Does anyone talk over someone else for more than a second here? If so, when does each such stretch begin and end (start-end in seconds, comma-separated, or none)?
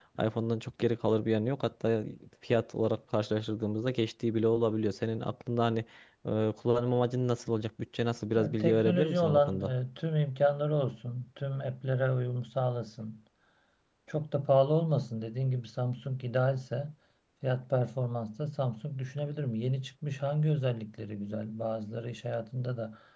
8.4-9.7